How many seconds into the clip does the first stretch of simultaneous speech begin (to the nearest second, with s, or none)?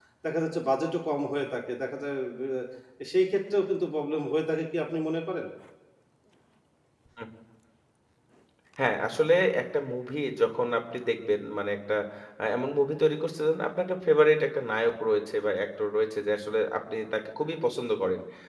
none